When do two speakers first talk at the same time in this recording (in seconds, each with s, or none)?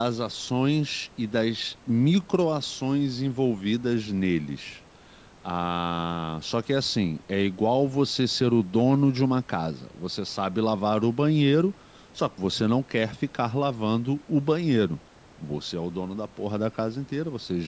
none